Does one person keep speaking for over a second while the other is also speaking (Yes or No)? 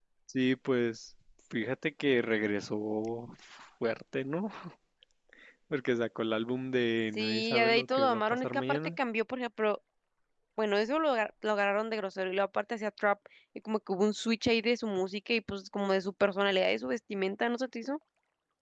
Yes